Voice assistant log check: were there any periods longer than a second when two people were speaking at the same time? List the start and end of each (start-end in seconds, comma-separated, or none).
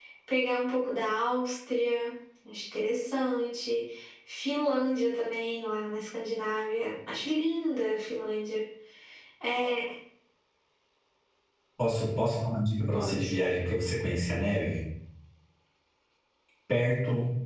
none